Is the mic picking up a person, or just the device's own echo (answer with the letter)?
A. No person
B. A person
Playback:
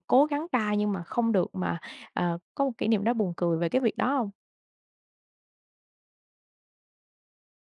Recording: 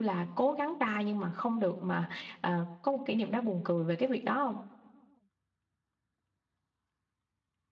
A